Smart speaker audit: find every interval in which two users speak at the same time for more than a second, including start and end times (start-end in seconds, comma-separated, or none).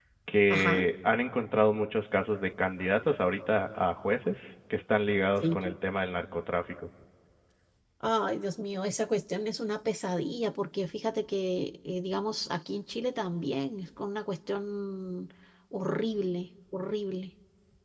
none